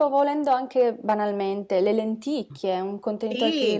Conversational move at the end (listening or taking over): taking over